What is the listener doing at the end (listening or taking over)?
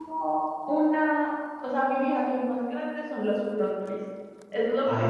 listening